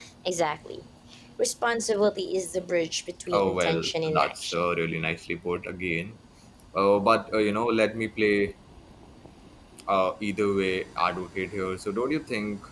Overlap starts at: 3.3 s

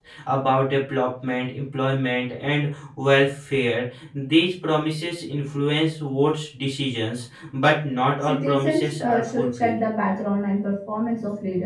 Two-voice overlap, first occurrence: 8.2 s

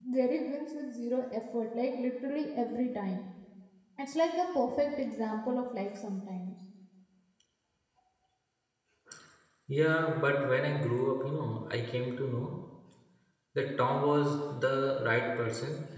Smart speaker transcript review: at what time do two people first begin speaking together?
none

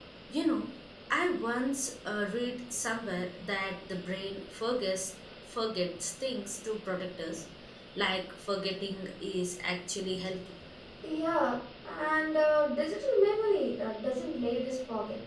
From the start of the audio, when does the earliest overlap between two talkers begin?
none

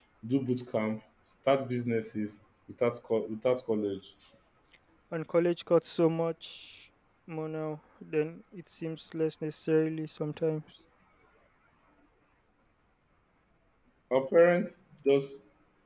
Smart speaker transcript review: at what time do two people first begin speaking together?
none

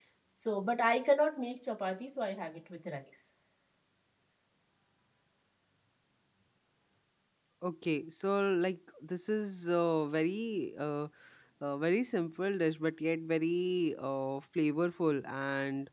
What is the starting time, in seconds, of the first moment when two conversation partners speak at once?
none

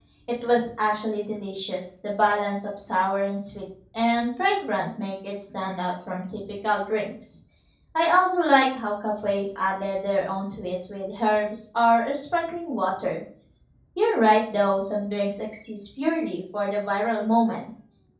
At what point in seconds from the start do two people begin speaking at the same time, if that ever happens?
none

